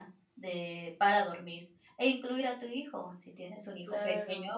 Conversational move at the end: listening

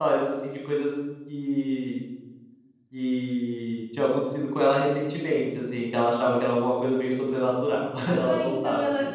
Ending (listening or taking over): taking over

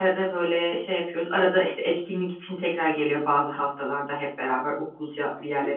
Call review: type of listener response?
taking over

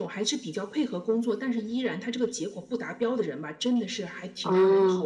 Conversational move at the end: listening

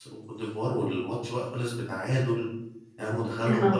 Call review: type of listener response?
taking over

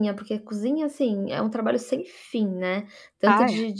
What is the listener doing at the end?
listening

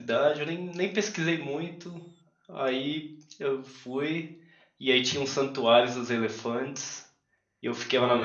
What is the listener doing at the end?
taking over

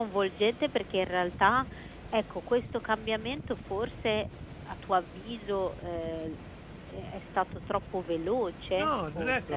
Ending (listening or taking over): taking over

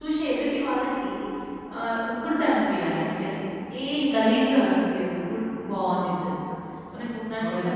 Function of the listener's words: listening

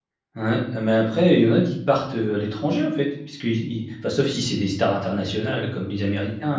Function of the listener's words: listening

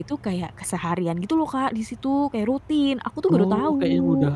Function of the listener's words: taking over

